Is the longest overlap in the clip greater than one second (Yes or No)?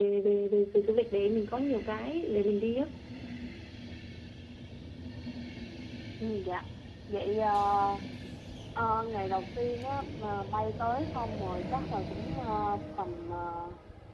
No